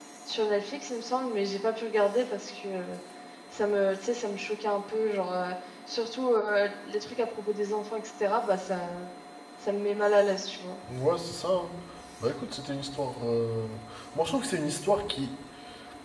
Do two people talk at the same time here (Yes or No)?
No